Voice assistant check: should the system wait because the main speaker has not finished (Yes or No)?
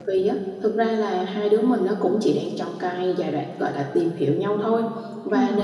Yes